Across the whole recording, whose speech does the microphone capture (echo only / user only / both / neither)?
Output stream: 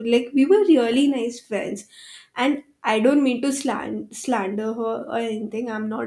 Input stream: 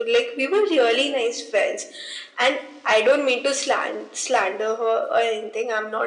echo only